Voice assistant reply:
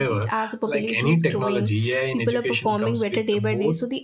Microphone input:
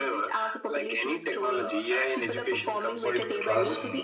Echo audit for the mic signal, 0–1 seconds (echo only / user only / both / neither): echo only